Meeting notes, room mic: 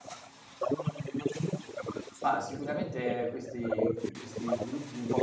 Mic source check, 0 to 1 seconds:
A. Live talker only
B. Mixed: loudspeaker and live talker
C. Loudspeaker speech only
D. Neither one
C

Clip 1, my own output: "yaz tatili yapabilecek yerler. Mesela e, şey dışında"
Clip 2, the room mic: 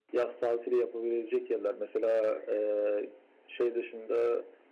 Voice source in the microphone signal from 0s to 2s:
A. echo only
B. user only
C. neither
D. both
A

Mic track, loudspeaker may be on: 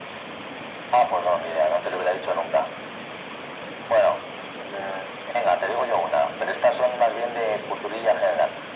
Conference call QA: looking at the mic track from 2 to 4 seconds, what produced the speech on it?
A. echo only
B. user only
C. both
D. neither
A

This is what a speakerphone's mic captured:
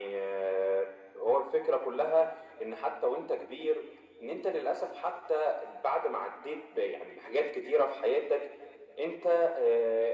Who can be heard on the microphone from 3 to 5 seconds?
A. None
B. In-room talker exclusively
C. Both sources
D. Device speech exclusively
D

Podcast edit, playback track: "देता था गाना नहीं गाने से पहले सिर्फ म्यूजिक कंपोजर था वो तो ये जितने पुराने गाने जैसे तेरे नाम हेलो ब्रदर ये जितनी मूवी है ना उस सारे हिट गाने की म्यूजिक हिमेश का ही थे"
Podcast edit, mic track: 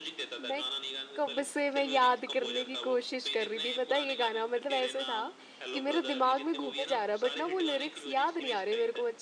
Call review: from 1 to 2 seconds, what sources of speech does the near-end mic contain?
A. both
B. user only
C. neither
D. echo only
A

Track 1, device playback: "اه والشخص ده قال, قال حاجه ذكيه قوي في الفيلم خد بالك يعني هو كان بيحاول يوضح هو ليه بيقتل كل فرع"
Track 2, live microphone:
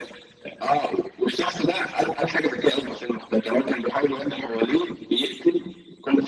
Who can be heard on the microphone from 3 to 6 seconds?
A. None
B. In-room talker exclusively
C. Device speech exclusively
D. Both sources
C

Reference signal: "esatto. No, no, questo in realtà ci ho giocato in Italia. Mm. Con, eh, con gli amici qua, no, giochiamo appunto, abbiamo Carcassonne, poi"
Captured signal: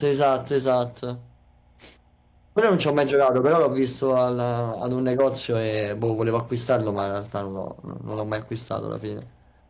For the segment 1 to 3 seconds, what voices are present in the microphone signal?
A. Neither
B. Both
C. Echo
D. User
D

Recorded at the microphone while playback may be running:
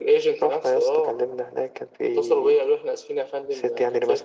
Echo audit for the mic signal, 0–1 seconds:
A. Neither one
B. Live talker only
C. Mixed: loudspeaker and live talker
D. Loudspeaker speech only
D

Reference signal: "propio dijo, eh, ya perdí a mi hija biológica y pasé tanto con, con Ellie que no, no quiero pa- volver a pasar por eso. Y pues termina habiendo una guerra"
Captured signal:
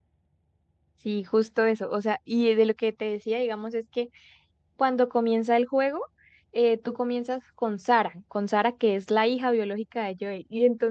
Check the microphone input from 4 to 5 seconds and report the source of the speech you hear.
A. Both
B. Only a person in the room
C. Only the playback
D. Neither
B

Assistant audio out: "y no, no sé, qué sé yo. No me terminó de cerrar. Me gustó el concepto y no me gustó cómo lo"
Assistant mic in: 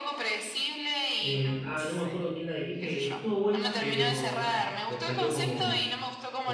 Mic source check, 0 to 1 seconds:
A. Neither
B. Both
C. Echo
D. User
C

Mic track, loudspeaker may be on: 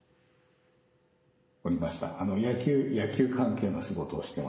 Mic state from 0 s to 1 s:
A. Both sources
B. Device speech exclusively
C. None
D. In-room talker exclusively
C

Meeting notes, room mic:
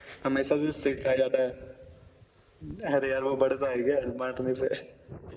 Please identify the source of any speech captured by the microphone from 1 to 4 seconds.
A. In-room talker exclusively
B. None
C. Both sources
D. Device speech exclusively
D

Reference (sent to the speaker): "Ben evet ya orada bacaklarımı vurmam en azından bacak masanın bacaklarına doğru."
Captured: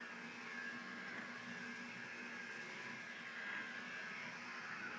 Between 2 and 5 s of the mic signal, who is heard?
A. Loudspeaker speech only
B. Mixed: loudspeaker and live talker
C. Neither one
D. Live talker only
C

